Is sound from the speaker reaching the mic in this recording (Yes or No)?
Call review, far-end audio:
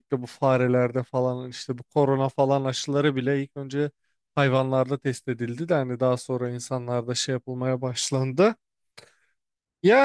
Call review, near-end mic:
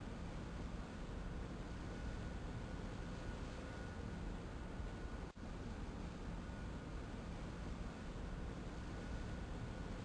No